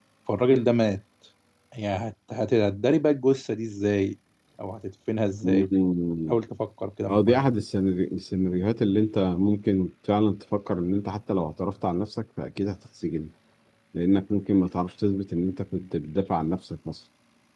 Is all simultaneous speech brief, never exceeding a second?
Yes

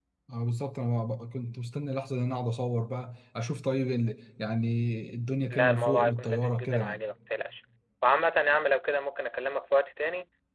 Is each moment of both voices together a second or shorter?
No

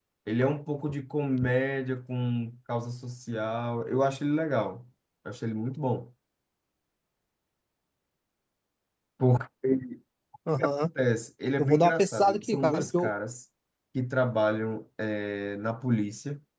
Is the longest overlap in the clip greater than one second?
Yes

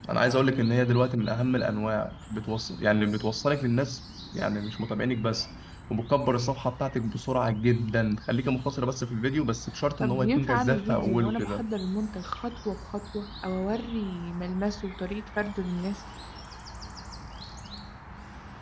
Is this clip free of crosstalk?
No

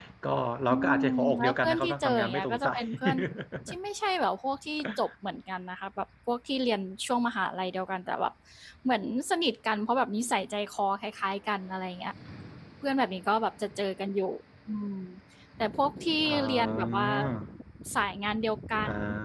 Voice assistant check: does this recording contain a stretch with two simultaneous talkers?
Yes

